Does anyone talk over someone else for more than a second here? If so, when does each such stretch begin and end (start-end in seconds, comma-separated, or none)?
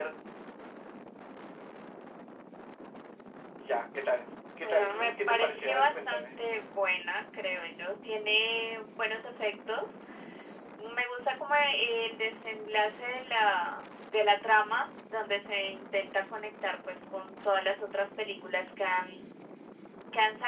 4.6-6.2